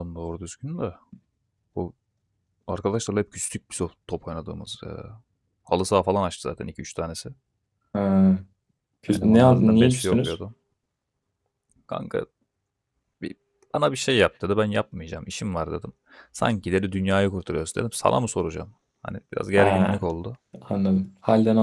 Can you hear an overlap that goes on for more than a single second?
Yes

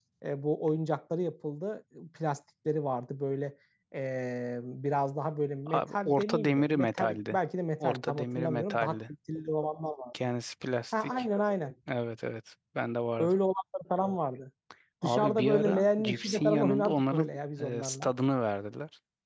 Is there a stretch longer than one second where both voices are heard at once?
Yes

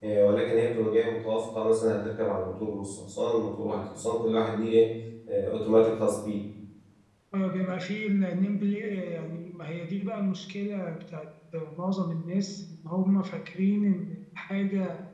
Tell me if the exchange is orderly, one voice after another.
Yes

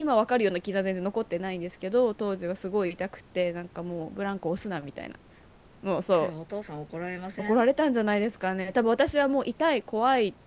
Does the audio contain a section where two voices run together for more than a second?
No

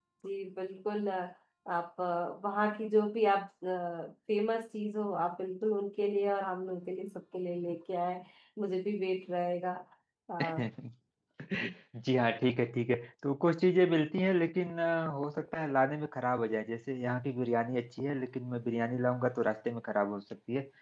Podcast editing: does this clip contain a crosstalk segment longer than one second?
No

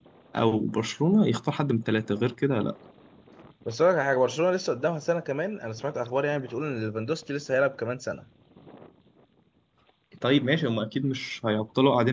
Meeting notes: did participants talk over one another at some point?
No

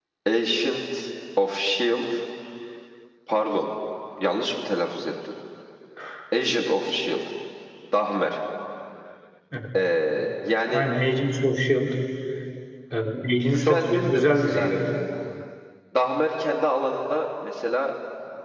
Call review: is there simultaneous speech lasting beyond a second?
Yes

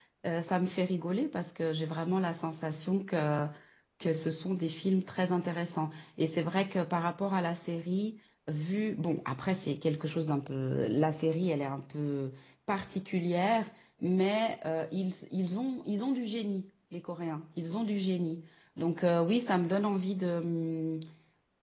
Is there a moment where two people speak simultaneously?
No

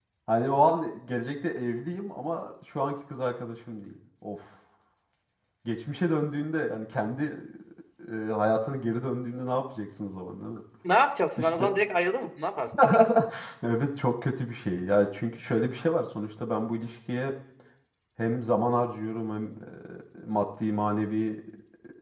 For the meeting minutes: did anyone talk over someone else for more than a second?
No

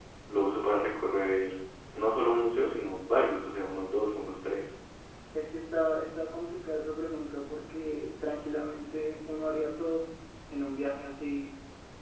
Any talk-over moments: No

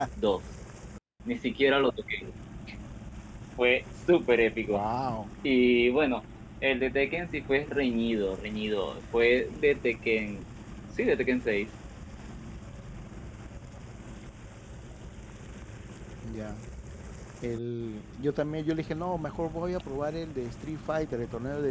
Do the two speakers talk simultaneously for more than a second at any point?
No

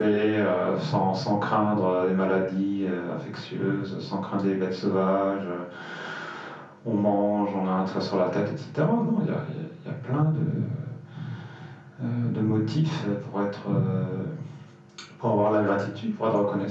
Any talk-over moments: No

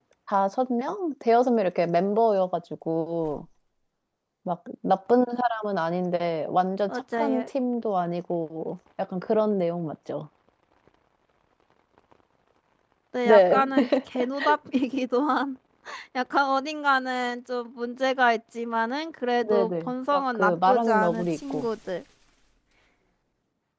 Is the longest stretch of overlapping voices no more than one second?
No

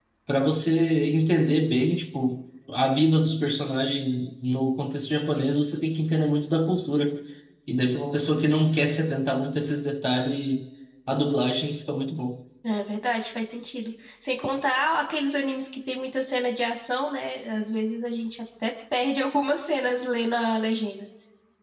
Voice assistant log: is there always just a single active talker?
Yes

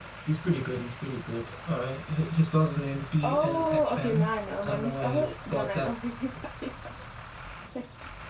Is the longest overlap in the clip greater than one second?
Yes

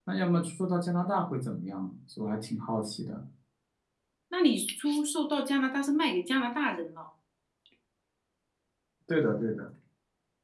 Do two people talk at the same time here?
No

